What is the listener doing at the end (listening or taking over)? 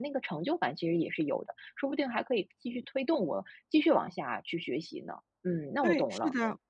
taking over